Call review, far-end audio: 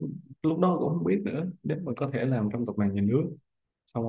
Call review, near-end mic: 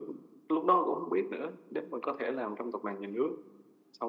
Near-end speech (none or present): none